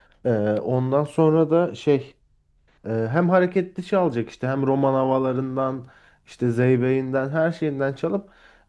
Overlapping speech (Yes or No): No